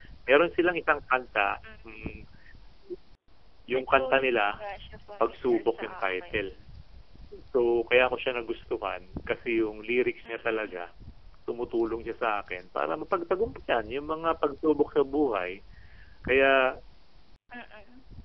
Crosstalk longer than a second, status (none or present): present